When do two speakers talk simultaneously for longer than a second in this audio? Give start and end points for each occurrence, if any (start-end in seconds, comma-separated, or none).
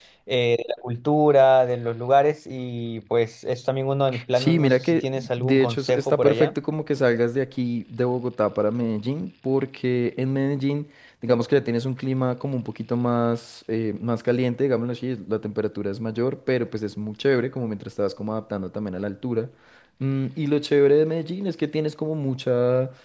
4.4-6.5